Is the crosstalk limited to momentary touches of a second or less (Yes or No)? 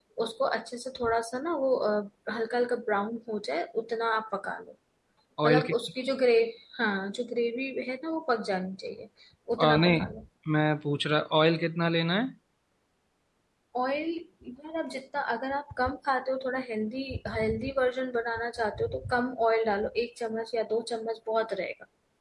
Yes